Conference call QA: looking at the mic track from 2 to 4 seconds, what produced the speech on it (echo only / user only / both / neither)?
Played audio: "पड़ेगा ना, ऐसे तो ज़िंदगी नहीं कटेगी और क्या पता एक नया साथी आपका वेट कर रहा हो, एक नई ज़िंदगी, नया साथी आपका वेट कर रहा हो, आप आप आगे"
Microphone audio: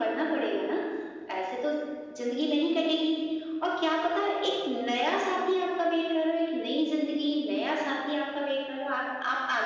echo only